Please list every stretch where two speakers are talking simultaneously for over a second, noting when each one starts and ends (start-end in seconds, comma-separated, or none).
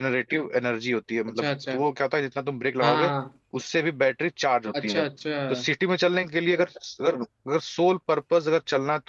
none